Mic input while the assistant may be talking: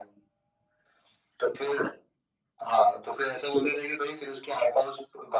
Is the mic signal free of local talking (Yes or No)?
Yes